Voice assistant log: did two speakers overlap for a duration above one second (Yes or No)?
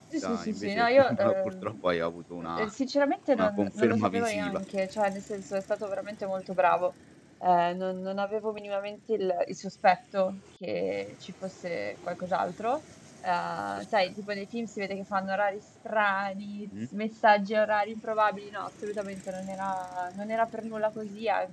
Yes